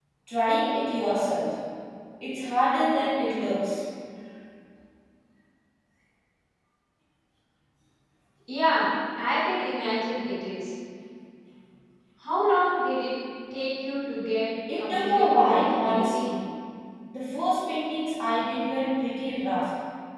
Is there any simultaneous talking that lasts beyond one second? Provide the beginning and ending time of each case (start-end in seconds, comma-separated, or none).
14.8-16.3